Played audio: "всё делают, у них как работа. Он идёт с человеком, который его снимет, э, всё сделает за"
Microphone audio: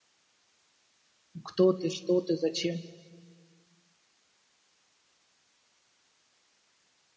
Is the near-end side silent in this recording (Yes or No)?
No